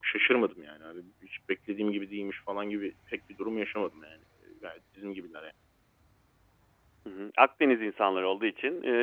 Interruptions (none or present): none